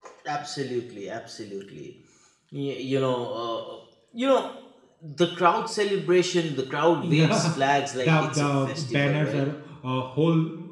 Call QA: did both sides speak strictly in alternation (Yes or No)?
No